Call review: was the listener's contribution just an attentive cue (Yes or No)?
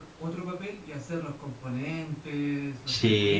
No